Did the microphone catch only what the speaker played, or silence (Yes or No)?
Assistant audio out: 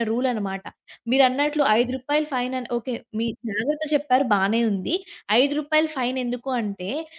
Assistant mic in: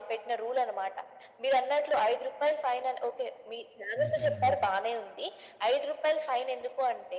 No